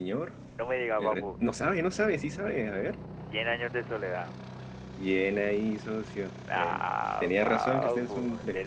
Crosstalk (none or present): present